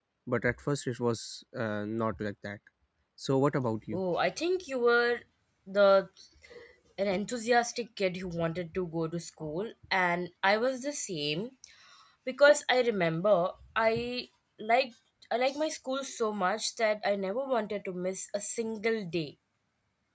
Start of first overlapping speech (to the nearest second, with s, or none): none